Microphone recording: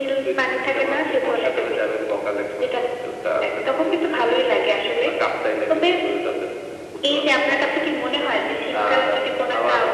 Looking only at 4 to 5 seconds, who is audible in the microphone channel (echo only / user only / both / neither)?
echo only